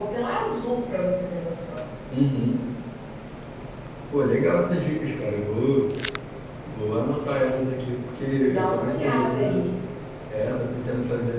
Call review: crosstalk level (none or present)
present